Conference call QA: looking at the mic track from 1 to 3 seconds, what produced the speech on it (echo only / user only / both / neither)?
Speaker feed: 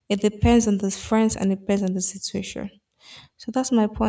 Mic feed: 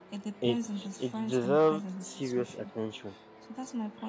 both